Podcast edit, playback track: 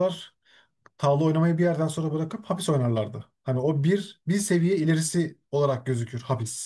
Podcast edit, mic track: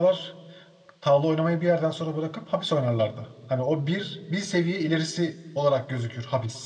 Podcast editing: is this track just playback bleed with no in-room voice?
Yes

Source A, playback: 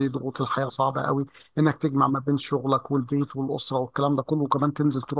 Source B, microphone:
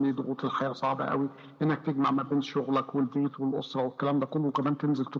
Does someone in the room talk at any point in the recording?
No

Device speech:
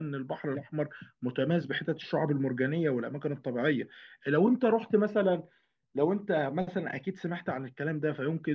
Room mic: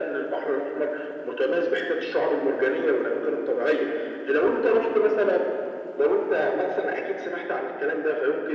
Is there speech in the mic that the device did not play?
No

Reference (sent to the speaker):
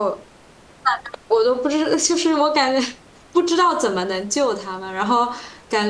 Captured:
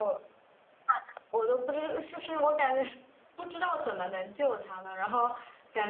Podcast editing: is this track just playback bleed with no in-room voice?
Yes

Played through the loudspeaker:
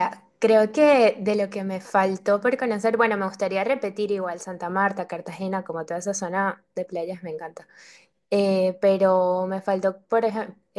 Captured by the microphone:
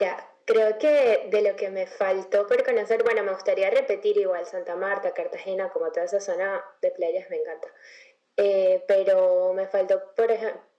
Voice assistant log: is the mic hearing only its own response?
Yes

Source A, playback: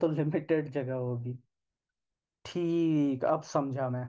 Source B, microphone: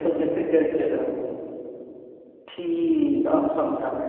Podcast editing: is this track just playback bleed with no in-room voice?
Yes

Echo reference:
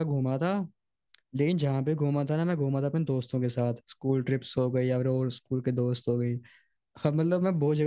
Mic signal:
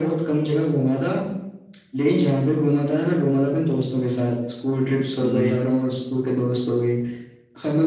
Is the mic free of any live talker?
No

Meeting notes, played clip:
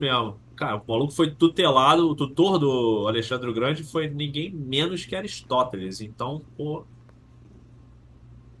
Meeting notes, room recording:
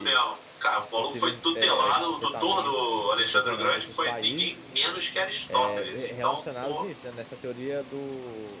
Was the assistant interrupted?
Yes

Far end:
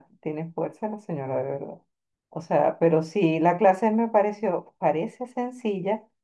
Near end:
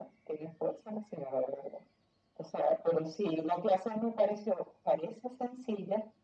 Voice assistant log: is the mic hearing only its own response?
Yes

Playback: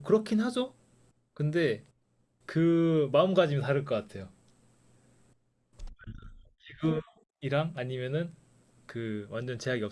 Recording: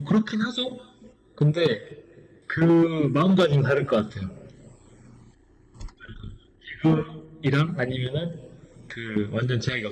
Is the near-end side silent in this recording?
Yes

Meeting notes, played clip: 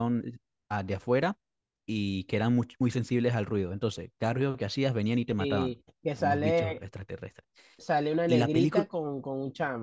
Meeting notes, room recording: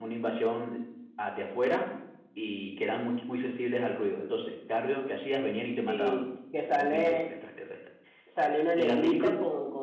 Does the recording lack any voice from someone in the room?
Yes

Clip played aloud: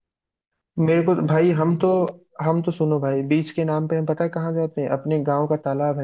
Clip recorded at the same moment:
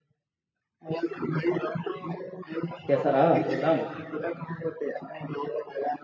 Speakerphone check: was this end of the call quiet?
No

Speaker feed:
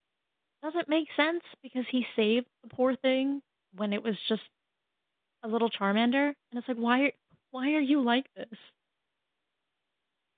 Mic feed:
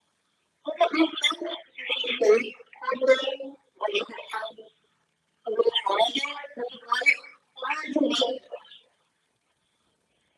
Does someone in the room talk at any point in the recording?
No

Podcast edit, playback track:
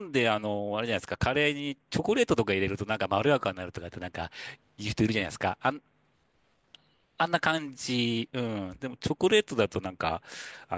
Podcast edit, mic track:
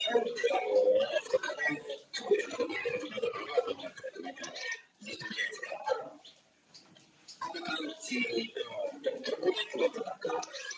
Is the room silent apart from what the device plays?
Yes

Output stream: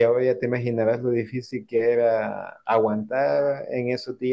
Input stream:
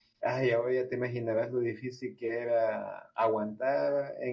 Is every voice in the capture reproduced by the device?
Yes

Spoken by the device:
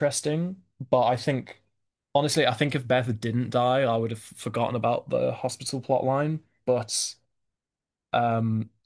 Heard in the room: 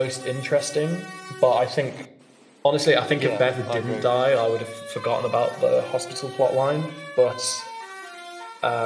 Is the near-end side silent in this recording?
No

